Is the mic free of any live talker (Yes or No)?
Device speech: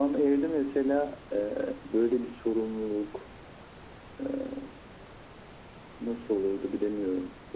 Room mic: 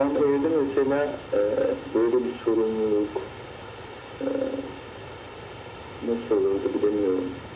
Yes